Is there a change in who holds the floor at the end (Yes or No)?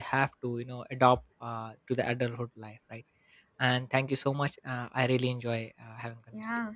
Yes